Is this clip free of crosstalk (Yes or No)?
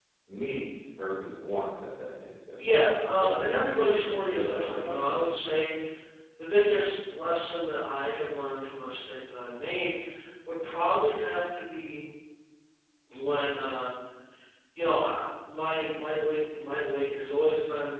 No